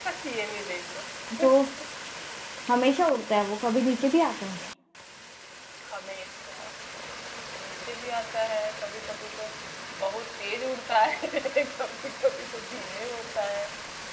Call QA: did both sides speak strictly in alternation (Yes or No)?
Yes